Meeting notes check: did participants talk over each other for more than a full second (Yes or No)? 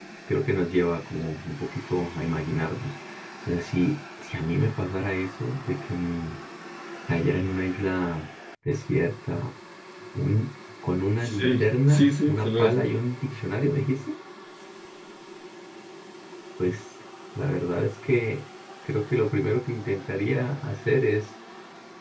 Yes